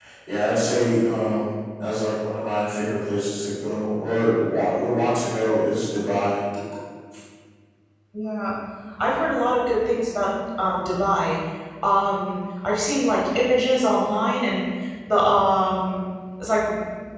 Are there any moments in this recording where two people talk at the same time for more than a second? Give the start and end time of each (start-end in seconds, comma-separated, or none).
none